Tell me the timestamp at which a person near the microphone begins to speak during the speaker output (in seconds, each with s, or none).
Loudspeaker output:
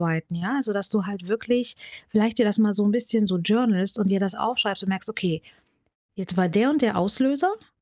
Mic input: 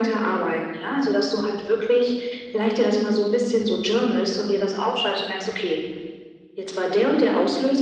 none